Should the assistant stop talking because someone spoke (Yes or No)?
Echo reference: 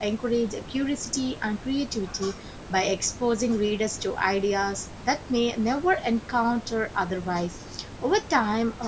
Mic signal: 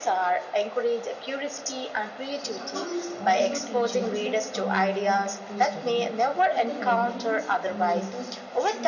Yes